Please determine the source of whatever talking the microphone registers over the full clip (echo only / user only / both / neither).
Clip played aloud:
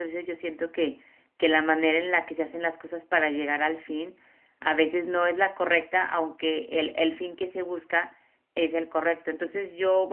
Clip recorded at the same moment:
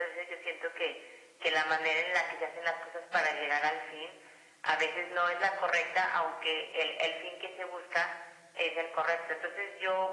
echo only